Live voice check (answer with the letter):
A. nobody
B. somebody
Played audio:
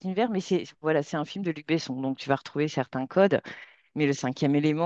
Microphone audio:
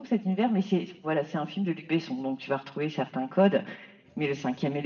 A